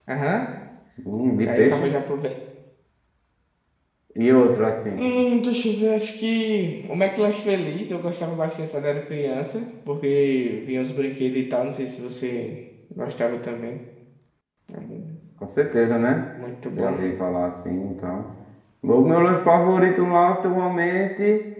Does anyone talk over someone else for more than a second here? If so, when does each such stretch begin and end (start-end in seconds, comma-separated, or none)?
none